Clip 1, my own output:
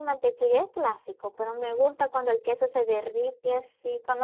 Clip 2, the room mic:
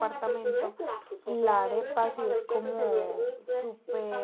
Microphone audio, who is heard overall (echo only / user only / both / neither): both